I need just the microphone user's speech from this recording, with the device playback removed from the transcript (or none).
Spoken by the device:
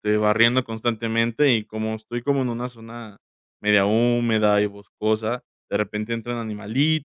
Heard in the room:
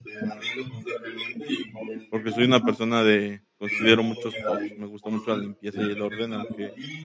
porque soy una persona de considero muchos tocs, me gusta mucho la limpieza y el orden, aunque